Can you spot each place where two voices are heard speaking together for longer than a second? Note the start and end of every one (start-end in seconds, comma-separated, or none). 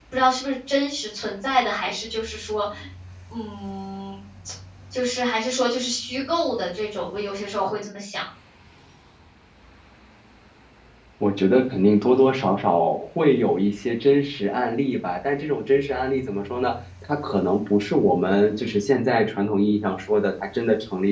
none